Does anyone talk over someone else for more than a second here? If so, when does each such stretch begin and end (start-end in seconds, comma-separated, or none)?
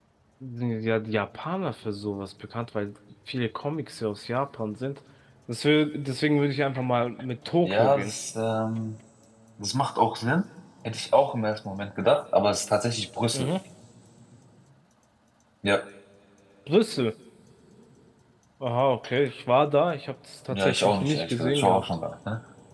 20.5-21.8